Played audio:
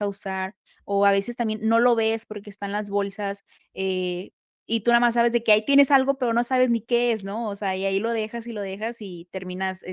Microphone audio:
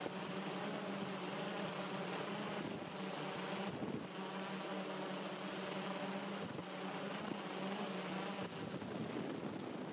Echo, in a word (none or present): none